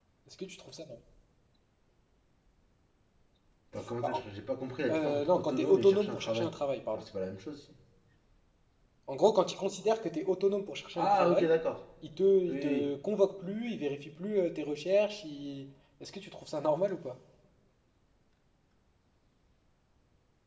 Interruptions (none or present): present